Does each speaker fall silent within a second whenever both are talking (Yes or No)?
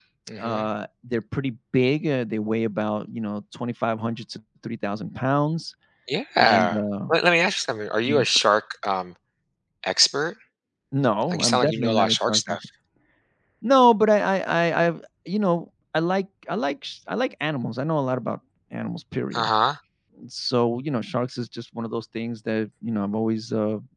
No